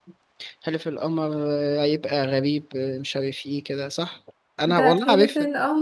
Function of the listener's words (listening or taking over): taking over